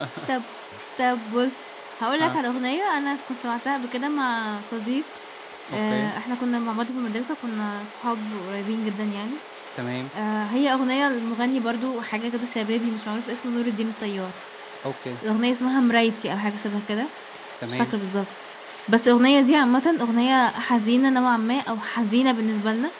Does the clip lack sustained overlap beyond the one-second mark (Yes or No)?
Yes